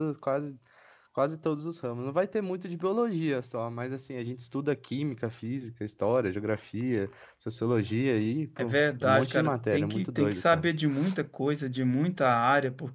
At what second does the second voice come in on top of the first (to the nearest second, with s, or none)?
9 s